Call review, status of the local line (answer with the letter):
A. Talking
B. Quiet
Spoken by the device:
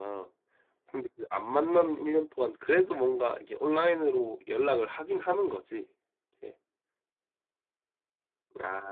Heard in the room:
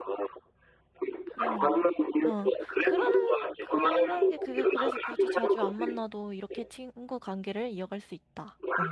A